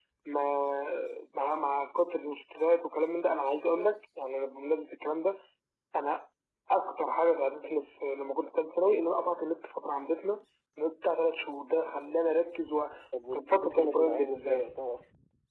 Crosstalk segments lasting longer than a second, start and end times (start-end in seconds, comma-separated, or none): 13.3-14.7